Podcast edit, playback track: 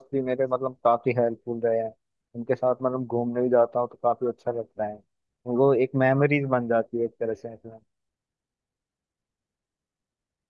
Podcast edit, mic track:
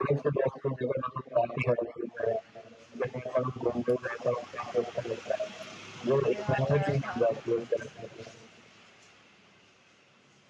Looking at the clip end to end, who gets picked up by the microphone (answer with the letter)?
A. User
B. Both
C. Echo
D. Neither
B